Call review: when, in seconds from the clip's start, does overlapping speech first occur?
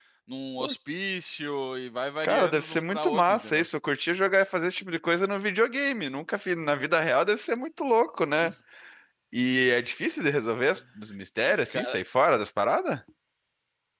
2.2 s

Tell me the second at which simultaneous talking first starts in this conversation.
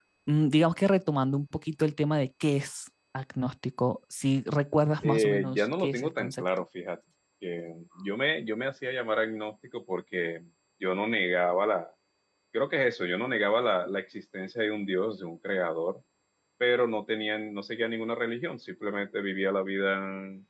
5.0 s

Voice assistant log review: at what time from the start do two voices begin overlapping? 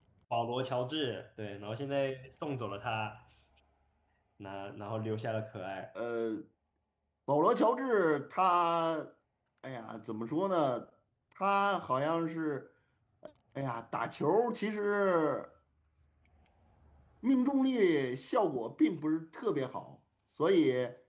none

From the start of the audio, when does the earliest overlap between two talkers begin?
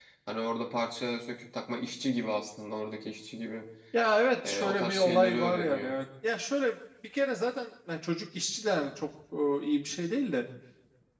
4.4 s

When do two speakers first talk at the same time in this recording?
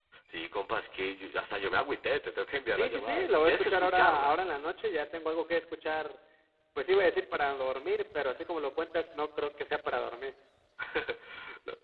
2.7 s

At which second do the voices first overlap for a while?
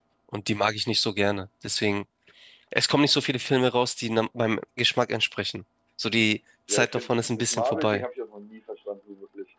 6.7 s

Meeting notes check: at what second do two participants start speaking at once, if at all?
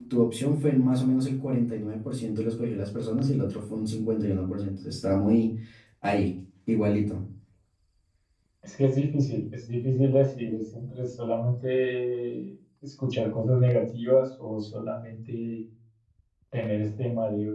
none

